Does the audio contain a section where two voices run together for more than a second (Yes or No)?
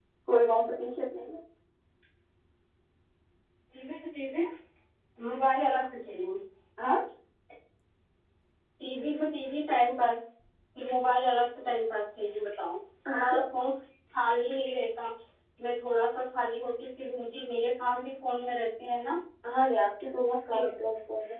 No